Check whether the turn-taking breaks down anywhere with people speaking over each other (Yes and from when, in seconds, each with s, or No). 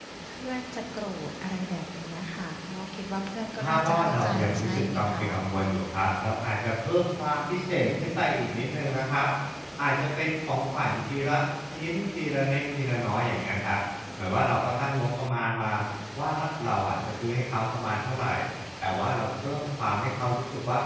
Yes, from 3.6 s